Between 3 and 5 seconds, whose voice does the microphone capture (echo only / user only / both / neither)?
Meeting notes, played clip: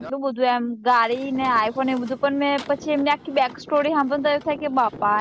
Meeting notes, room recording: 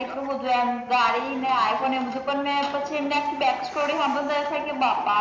echo only